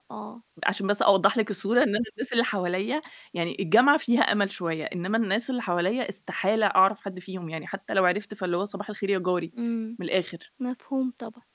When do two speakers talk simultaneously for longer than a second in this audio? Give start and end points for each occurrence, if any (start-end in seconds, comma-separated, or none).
none